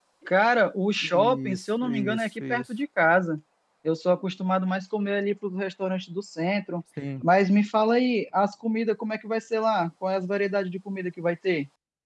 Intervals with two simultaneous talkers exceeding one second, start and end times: 1.0-2.6

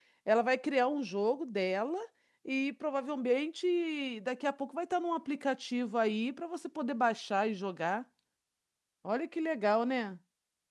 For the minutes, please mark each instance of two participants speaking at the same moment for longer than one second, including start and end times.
none

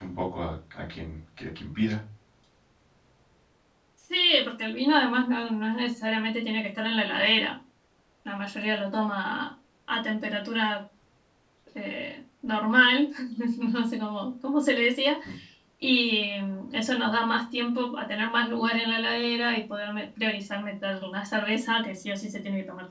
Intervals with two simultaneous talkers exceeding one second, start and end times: none

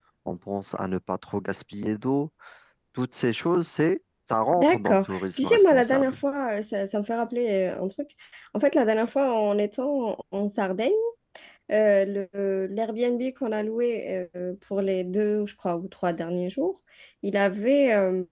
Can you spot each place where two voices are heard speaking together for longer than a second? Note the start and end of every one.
4.6-6.1

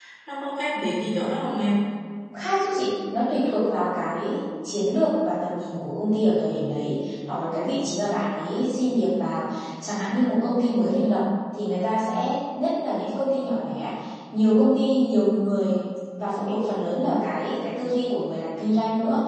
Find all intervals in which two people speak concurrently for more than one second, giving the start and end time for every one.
none

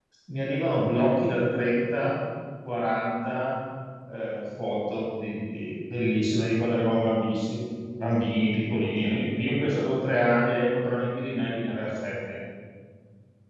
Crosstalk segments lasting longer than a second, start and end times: none

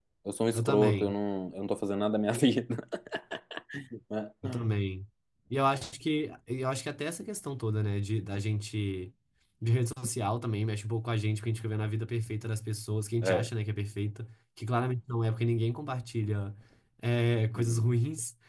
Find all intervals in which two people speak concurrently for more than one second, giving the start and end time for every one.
none

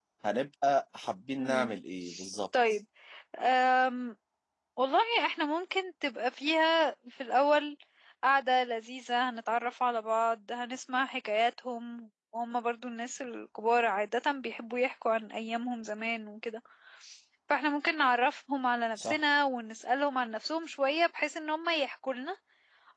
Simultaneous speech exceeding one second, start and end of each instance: none

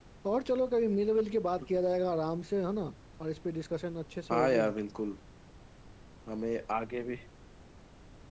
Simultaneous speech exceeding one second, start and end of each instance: none

